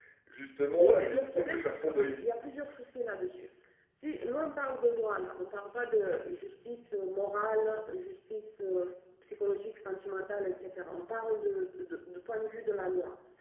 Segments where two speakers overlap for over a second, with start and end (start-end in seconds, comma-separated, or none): 0.8-2.1